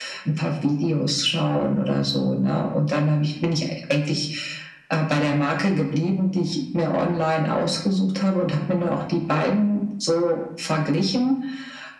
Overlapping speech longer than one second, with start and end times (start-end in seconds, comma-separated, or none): none